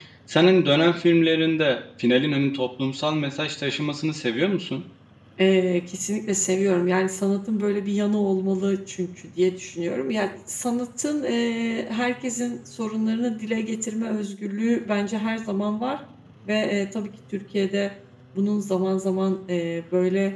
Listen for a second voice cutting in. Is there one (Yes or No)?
No